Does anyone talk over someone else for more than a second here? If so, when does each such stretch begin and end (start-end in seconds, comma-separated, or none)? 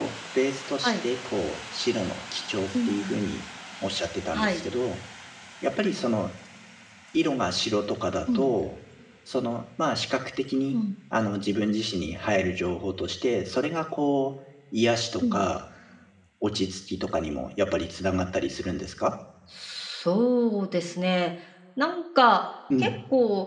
none